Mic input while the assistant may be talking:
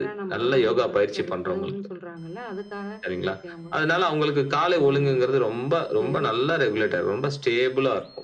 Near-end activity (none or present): none